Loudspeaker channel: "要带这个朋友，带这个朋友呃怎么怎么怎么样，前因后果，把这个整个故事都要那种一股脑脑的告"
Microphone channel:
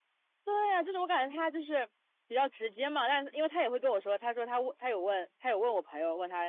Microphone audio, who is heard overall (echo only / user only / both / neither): user only